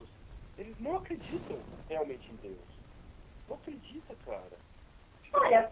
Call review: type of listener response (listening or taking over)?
taking over